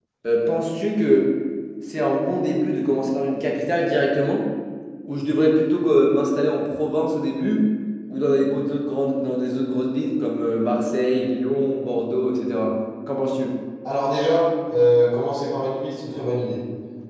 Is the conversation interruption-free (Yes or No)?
Yes